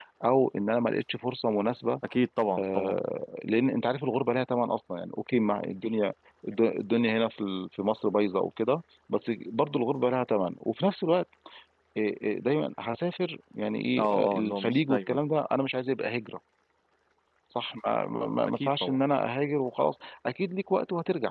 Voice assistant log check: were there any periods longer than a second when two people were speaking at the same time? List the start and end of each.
14.0-15.2

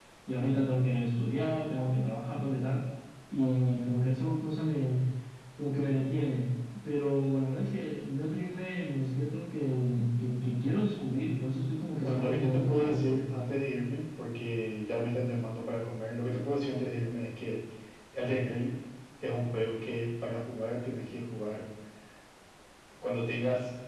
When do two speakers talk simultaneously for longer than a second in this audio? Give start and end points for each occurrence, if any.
12.0-13.2

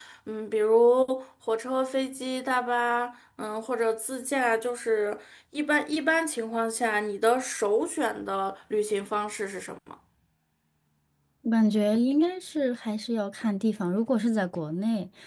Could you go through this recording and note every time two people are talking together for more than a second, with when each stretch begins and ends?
none

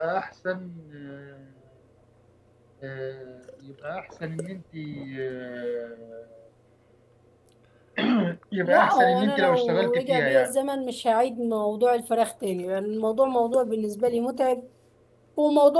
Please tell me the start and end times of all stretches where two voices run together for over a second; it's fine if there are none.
8.6-10.6

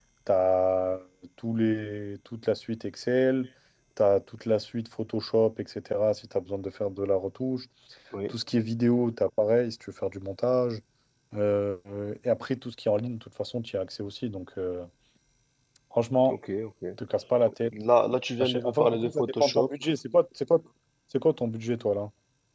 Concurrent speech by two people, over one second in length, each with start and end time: 18.4-19.7

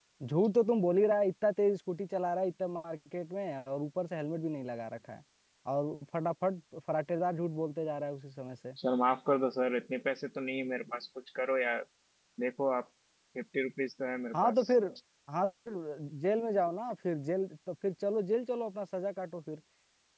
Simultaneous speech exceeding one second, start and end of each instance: none

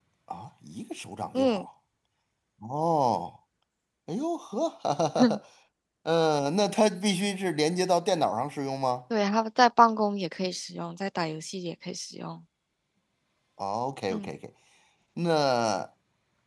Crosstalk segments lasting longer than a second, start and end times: none

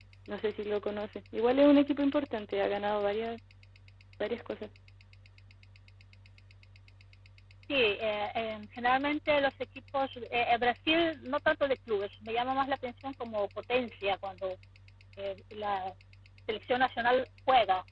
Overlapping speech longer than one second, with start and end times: none

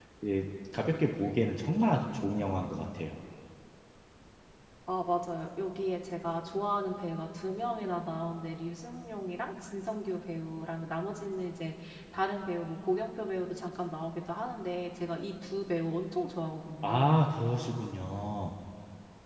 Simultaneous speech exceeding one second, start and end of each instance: none

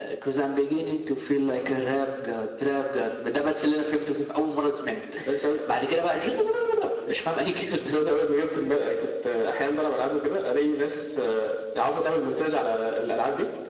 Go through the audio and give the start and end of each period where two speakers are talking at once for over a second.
none

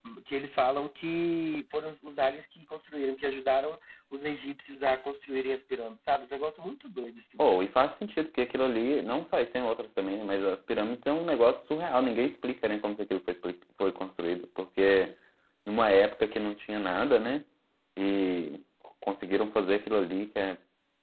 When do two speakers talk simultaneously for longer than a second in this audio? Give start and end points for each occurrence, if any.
none

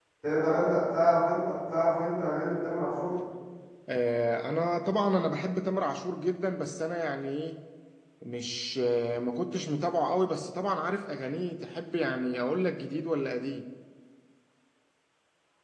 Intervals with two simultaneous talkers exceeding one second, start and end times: none

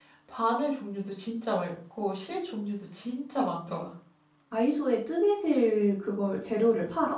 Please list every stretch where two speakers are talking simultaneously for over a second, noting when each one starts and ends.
none

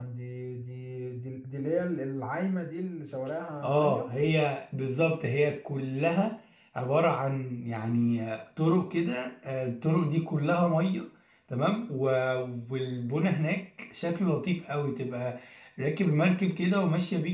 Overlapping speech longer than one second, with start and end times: none

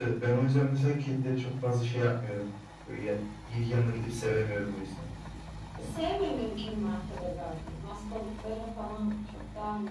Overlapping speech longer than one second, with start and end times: none

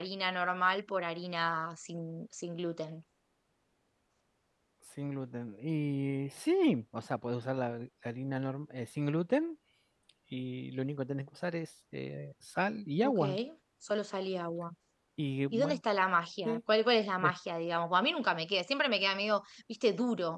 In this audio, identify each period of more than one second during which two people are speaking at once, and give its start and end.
none

